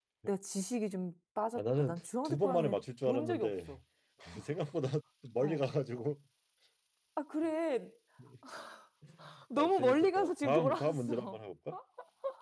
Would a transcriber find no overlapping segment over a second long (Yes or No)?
No